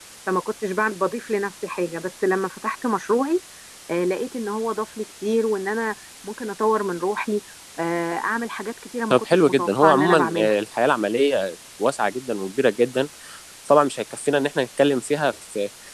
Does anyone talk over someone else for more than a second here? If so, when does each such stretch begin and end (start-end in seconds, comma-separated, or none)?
9.1-10.5